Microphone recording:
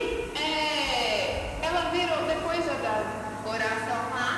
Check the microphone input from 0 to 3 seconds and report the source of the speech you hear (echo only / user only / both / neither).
echo only